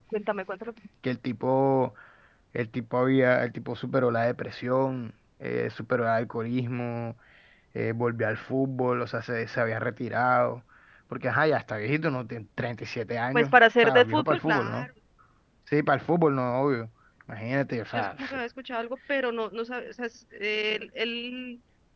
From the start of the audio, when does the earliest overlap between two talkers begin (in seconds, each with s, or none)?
13.3 s